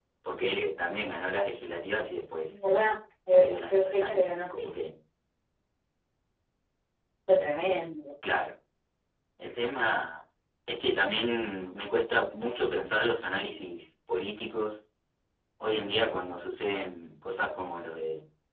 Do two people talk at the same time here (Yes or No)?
Yes